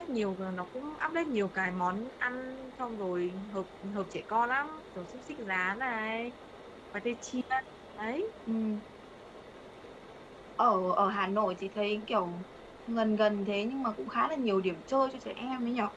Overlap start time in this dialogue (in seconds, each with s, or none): none